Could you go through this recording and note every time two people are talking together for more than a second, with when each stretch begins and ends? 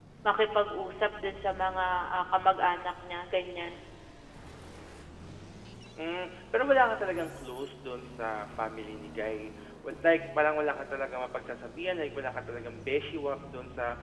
none

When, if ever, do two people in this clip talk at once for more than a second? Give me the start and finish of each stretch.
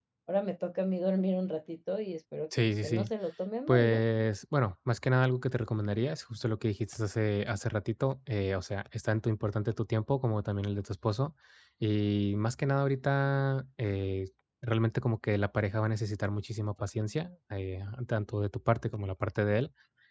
none

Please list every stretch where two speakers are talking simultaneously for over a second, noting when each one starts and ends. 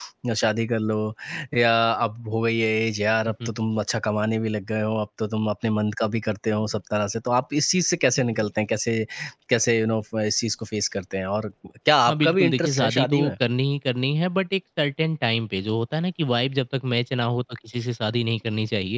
12.1-13.3

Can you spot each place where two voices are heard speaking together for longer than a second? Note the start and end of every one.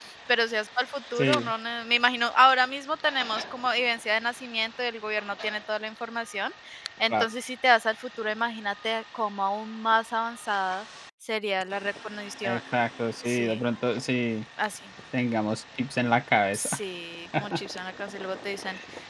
none

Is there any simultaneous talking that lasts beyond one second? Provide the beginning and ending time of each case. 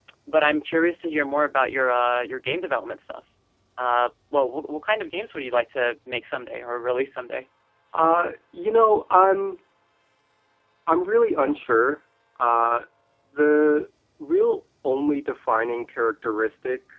none

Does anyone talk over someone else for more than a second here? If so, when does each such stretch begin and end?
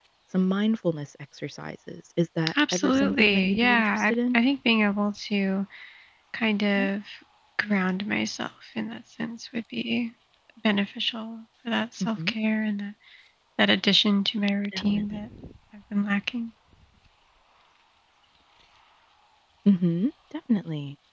2.7-4.4

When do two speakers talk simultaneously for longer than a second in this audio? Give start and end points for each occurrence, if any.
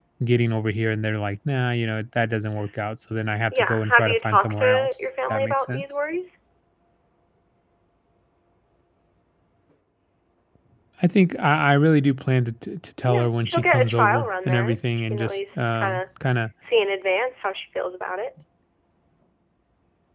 3.5-5.8, 13.1-16.0

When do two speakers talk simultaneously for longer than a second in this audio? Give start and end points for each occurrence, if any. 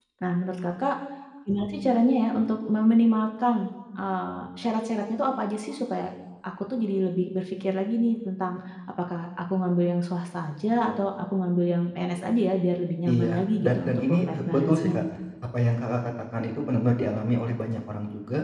13.1-15.0

